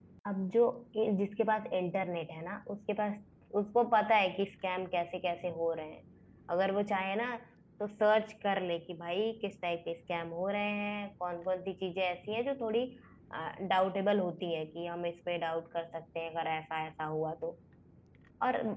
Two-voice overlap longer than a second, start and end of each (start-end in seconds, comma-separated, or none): none